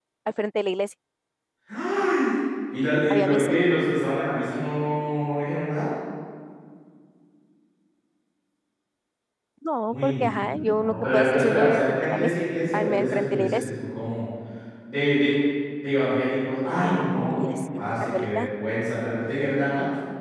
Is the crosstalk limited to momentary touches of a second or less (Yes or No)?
No